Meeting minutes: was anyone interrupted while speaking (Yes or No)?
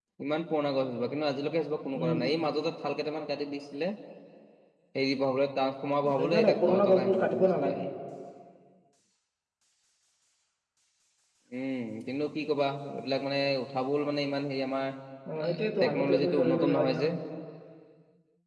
Yes